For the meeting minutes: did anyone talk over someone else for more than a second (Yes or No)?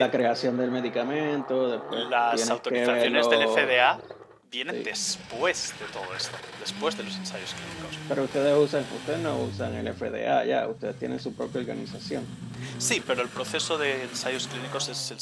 Yes